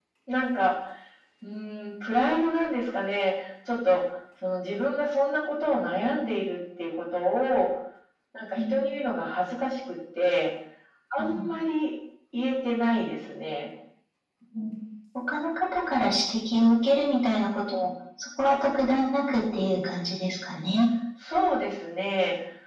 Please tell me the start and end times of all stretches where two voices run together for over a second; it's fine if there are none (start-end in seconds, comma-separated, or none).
none